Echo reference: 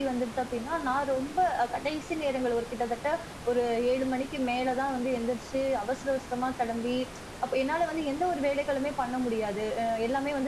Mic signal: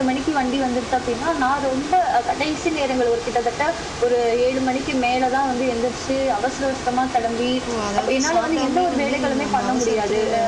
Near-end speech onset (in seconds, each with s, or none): 7.7 s